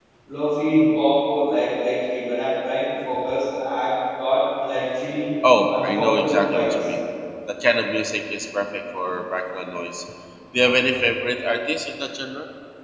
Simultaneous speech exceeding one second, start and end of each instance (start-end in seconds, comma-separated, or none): 5.6-6.9